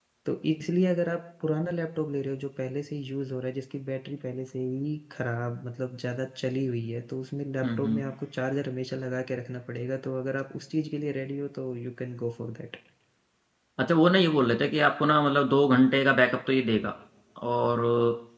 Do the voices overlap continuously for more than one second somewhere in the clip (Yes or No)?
No